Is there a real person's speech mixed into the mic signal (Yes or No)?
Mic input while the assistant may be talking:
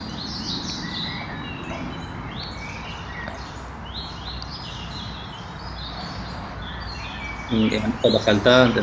Yes